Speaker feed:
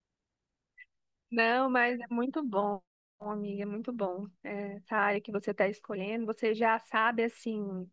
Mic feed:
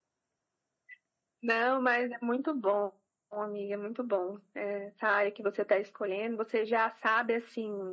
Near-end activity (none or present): none